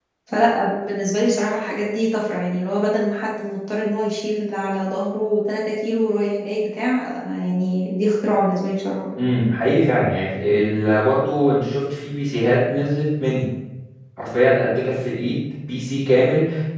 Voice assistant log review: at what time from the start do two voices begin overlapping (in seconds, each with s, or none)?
none